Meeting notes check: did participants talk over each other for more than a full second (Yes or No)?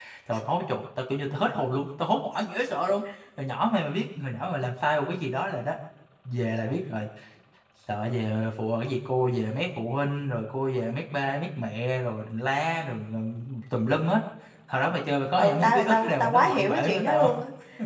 Yes